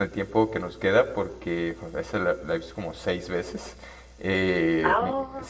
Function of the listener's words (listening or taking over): listening